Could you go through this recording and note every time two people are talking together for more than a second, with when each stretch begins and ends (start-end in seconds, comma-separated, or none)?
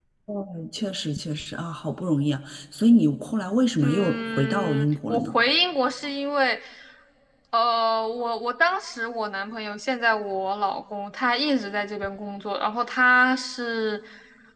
3.8-5.4